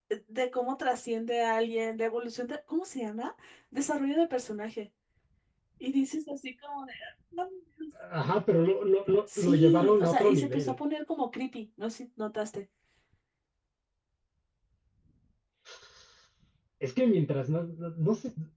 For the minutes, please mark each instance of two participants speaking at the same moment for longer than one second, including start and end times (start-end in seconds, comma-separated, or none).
9.4-10.8